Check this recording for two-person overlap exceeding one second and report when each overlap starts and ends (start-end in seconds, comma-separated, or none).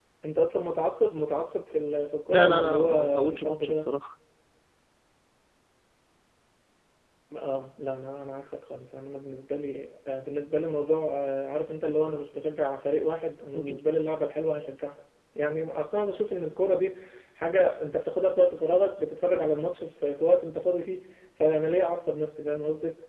2.3-3.9